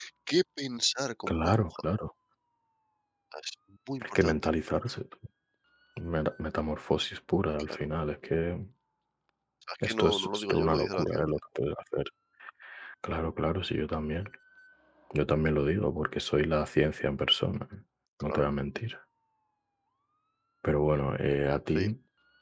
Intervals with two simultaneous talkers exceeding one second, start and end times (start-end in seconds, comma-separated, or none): 9.8-11.3